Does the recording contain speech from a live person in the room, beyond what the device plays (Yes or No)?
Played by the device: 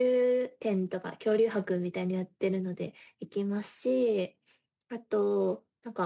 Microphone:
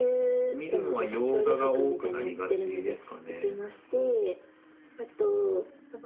Yes